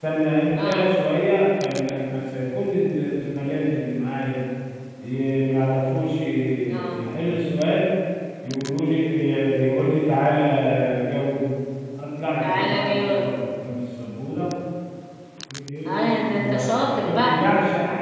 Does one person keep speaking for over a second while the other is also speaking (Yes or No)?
Yes